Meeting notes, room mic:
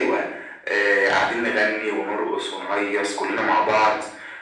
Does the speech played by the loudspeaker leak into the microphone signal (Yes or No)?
Yes